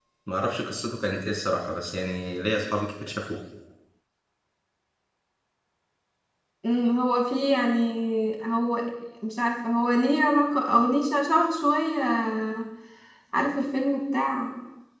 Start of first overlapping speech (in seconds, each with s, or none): none